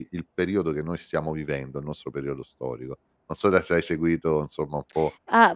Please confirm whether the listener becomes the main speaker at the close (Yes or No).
Yes